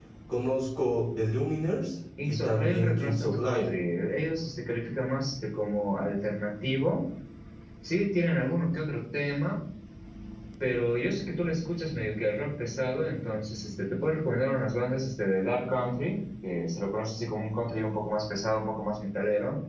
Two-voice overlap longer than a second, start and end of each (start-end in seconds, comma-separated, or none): 2.2-3.8